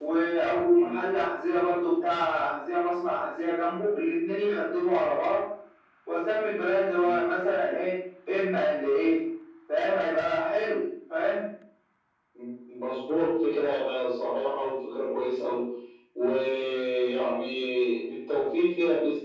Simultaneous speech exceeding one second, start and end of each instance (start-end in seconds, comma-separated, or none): none